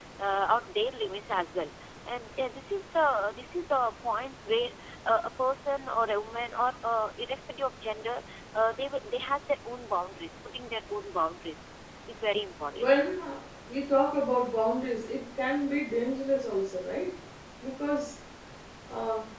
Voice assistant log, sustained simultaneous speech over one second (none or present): none